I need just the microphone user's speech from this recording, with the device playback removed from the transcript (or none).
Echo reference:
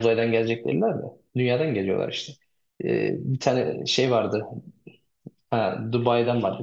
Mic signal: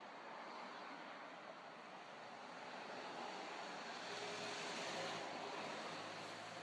none